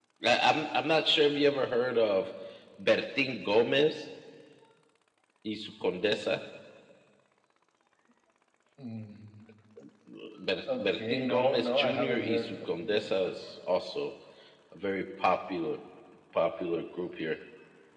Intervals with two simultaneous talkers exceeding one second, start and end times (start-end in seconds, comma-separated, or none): 10.7-13.1